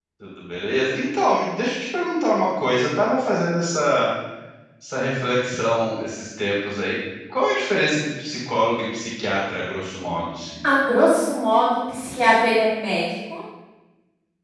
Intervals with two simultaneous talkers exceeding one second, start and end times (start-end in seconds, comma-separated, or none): none